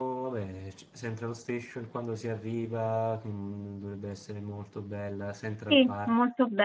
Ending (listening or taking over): taking over